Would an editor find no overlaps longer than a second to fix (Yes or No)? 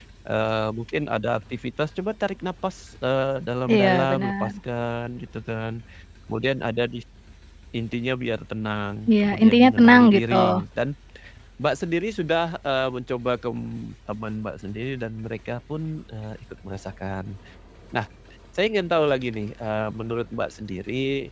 No